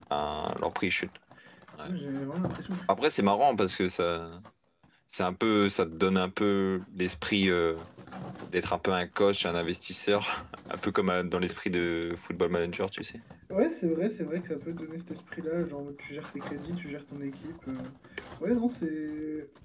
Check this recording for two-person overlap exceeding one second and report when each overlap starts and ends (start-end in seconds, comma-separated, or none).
none